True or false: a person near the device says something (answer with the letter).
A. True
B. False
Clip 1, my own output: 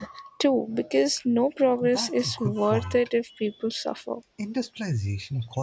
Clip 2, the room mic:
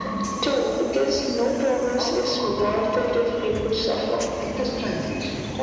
B